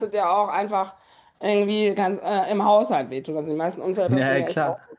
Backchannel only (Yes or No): No